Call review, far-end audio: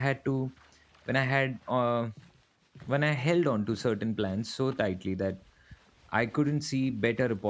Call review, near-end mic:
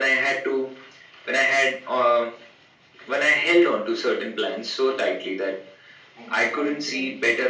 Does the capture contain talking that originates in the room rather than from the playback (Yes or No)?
Yes